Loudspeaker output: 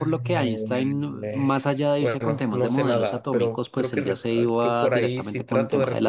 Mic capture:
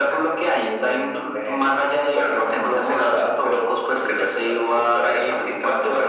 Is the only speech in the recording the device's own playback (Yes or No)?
Yes